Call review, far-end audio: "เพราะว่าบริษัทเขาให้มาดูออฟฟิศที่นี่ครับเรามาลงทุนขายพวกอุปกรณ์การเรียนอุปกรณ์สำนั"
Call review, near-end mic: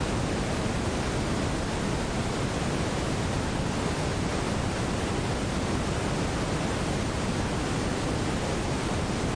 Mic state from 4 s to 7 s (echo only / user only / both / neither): neither